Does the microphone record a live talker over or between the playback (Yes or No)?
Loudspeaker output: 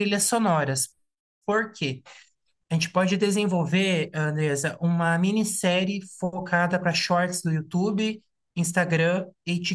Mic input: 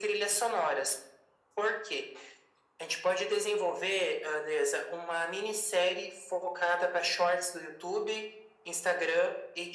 No